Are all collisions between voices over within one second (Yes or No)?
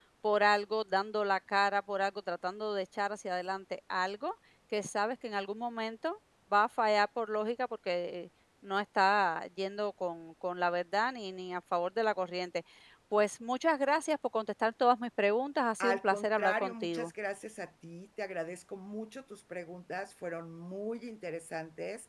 No